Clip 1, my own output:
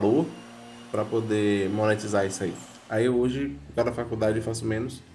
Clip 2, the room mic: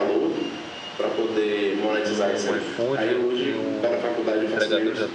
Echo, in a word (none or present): present